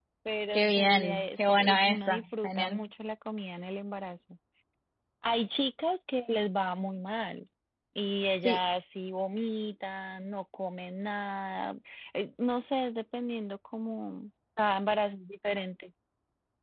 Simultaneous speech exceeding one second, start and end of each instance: 0.5-2.8

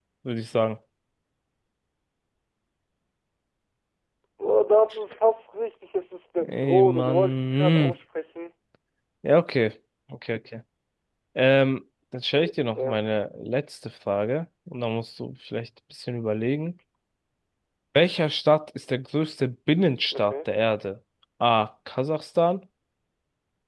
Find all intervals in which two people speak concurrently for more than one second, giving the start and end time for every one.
6.5-7.9

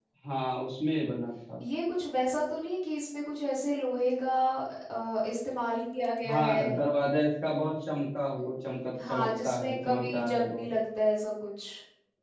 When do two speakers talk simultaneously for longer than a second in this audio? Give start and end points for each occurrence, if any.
9.1-10.7

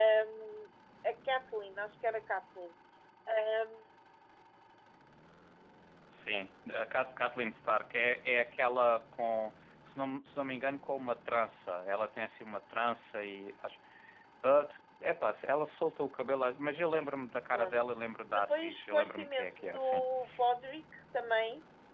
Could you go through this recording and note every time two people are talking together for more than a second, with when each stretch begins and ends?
18.3-20.0

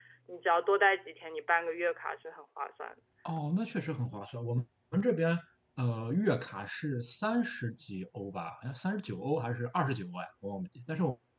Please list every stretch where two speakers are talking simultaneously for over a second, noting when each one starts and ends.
none

